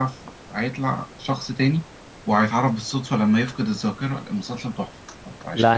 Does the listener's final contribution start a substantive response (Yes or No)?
Yes